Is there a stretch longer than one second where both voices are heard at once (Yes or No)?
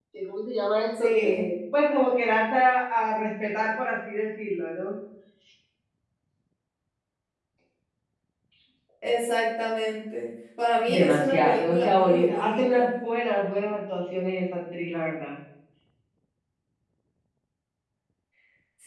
Yes